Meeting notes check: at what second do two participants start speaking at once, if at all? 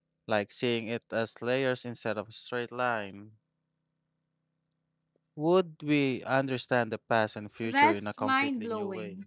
8 s

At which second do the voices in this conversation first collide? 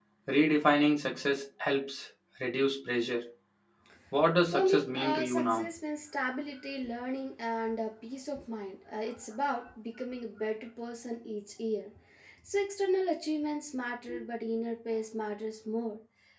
4 s

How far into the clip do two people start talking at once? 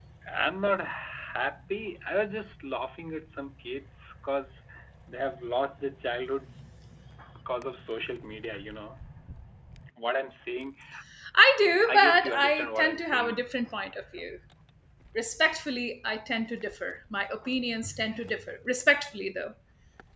12 s

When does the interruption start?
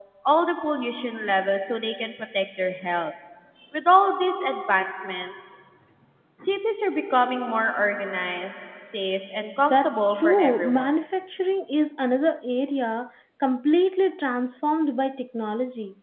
10 s

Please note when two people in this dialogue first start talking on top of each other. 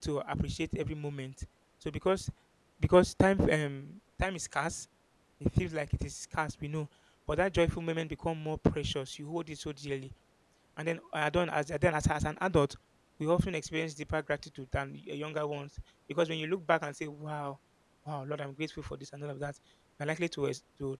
none

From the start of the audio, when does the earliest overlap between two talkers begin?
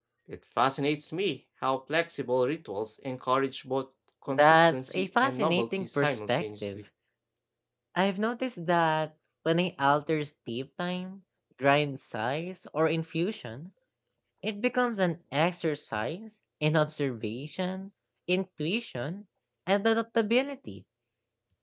4 s

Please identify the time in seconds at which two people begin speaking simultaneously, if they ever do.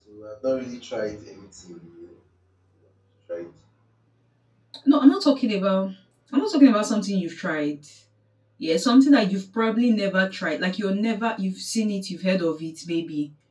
none

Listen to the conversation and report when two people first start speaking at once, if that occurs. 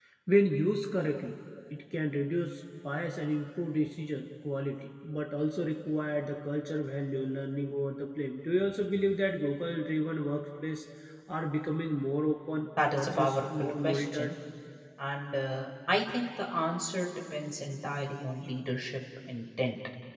13 s

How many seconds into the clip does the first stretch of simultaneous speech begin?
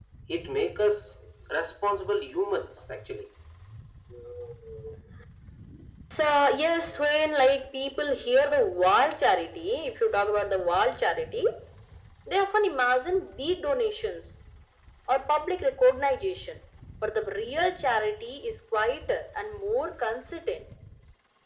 none

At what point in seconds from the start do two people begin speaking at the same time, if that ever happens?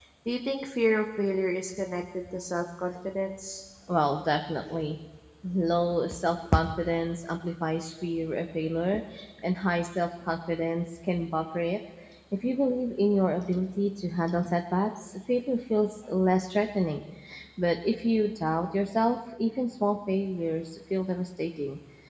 none

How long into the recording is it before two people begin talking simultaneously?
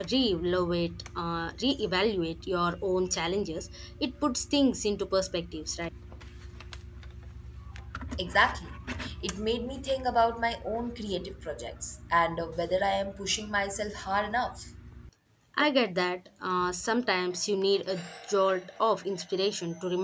none

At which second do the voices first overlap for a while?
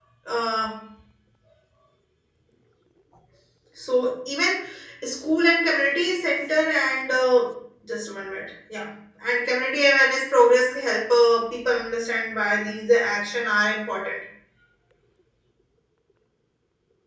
none

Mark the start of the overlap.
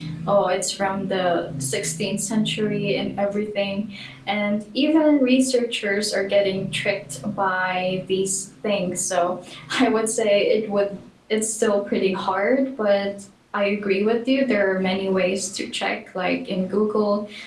none

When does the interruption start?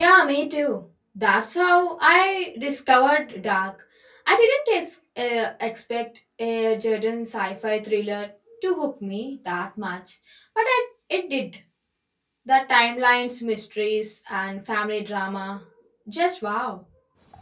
none

